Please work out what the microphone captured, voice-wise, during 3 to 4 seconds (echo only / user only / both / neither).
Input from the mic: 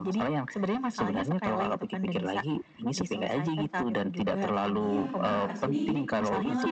echo only